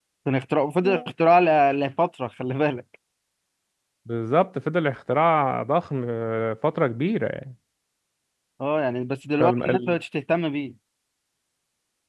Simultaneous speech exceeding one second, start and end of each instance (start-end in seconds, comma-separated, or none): none